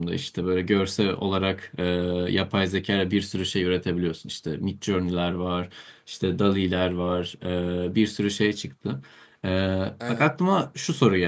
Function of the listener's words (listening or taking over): listening